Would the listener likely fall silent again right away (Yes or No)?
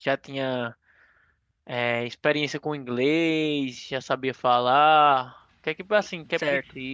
No